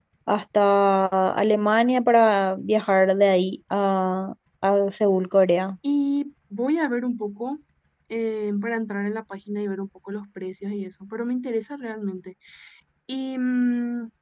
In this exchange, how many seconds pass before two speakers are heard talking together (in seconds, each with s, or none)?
none